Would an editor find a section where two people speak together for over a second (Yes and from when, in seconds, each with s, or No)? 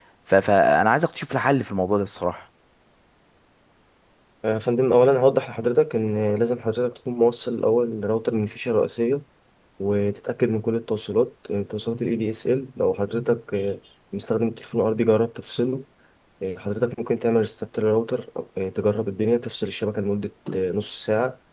No